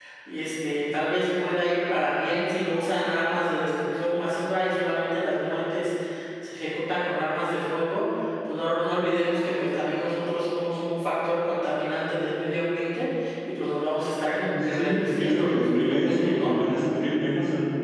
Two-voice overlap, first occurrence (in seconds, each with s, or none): 14.5 s